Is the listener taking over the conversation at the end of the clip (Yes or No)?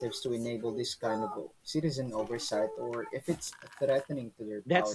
Yes